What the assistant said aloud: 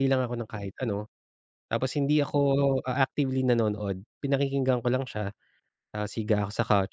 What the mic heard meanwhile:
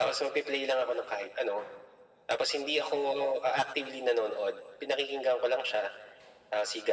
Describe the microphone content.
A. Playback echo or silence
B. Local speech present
A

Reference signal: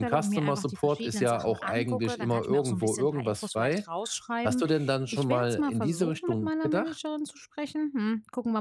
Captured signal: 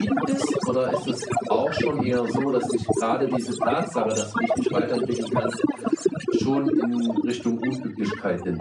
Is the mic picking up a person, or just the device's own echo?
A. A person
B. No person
A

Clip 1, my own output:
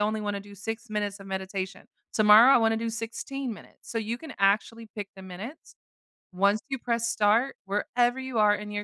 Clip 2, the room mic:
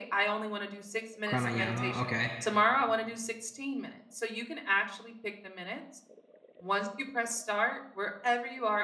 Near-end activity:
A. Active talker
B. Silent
A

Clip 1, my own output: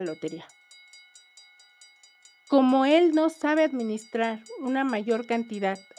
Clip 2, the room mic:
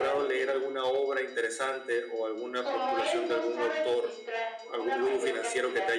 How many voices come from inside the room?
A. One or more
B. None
A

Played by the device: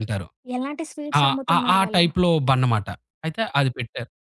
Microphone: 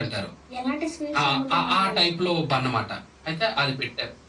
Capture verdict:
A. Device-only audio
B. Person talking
A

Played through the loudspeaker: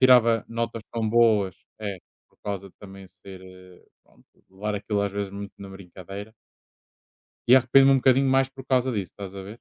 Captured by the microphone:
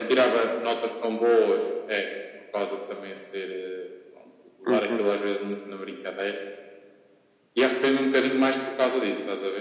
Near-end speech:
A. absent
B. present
B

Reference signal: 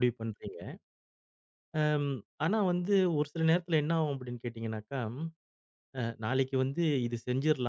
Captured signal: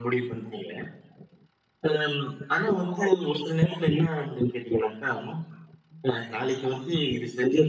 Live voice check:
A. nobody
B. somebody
A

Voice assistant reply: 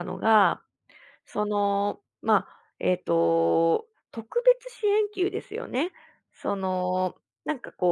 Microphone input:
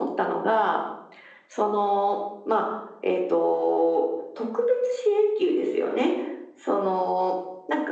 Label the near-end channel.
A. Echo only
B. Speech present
A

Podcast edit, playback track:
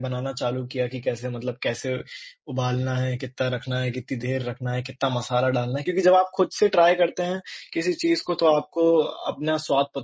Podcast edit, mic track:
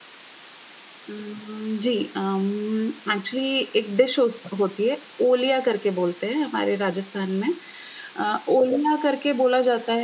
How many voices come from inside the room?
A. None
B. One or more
B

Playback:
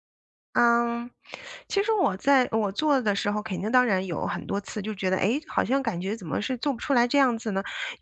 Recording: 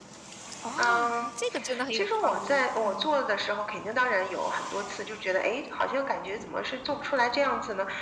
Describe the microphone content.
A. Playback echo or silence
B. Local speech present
B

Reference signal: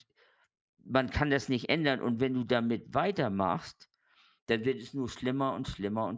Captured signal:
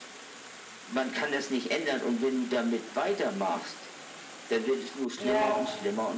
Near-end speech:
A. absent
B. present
B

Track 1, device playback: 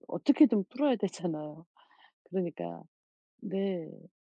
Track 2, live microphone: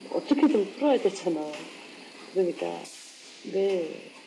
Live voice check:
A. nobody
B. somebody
A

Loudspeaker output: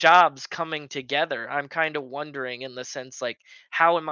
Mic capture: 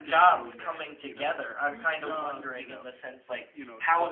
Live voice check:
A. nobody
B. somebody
B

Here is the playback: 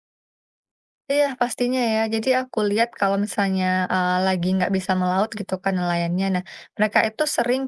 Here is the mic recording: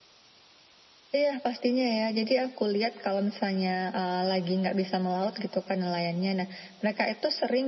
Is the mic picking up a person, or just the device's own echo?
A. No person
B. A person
A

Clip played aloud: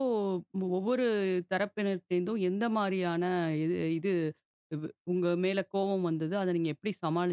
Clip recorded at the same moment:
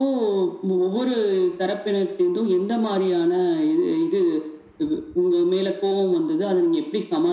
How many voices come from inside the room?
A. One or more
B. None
B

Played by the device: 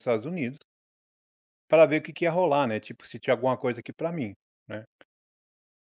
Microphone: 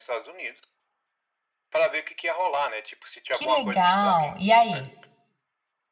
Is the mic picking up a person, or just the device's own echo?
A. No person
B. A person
B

